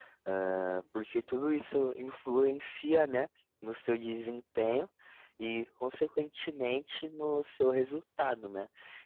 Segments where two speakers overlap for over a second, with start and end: none

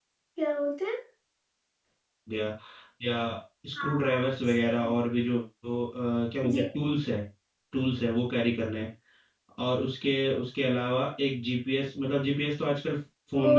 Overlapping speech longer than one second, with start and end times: none

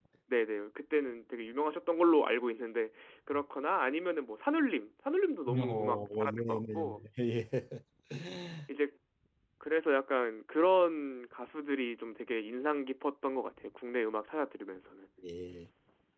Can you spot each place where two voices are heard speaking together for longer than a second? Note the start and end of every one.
5.5-7.0

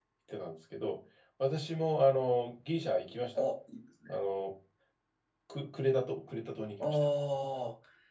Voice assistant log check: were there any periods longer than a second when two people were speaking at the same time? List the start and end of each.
none

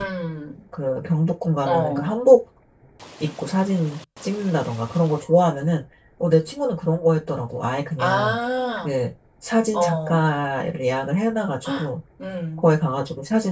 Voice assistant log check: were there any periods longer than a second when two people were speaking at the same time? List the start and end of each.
none

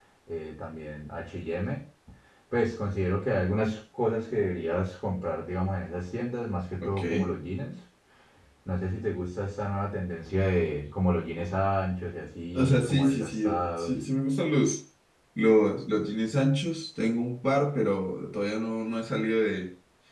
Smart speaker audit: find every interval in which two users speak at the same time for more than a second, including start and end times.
12.5-14.0

